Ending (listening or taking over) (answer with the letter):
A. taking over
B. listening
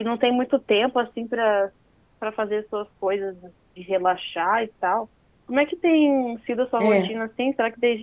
B